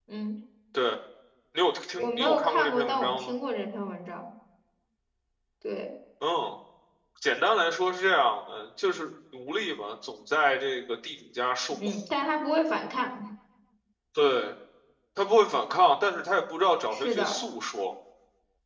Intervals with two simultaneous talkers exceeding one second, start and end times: 2.0-3.3

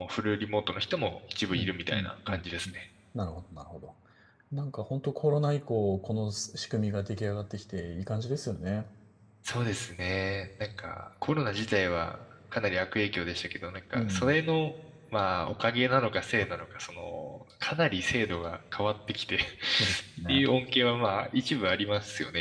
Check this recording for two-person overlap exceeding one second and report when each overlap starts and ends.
1.5-2.7

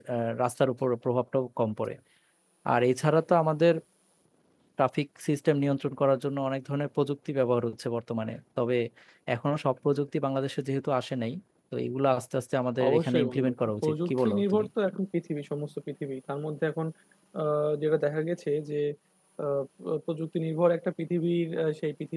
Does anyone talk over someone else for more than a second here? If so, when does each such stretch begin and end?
12.9-14.7

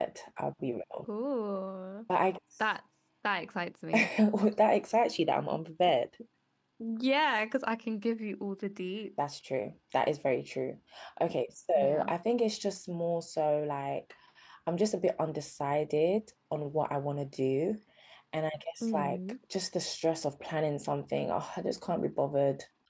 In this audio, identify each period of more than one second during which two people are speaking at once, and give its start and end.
none

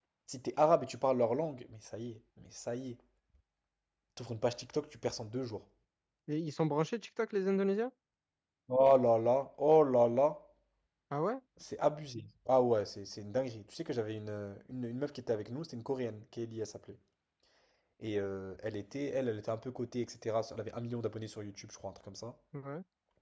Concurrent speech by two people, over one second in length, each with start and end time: none

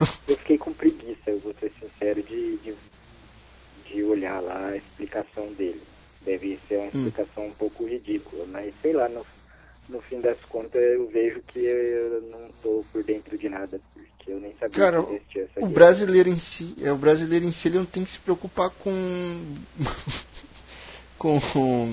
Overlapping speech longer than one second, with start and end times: none

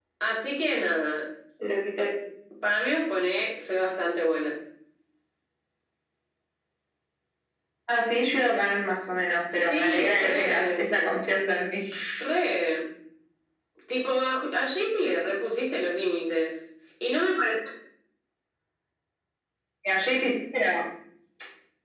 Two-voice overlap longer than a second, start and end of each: 9.7-10.9

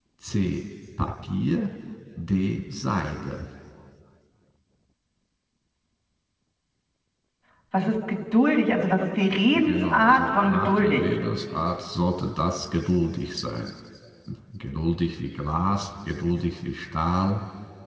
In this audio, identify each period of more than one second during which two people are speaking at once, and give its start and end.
9.5-11.0

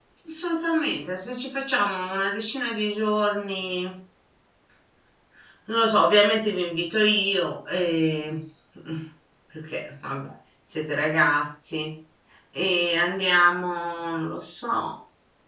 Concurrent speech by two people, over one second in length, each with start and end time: none

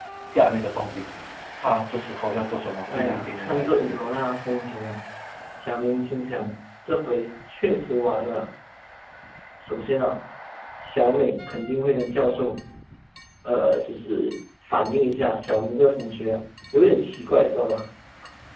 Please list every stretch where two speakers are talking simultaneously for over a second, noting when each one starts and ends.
2.9-4.1

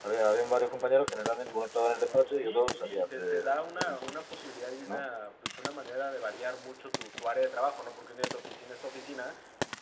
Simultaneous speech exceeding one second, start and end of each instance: 2.4-4.0

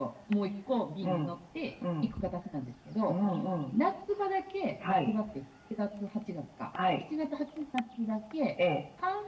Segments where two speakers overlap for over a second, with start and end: none

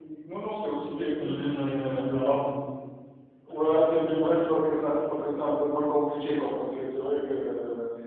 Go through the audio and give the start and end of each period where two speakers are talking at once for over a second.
1.1-2.5

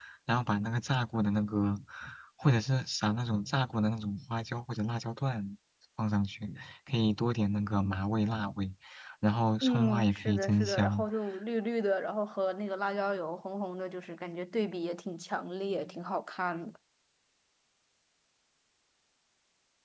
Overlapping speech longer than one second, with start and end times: 9.6-11.0

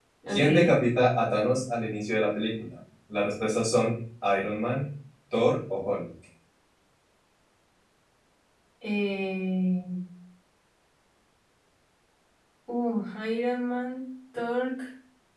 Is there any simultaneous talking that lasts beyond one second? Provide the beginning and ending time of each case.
none

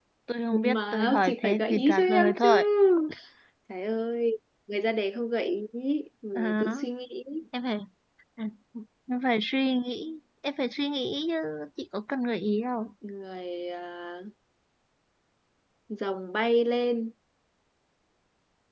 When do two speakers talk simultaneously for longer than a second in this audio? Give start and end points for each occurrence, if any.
0.5-2.5

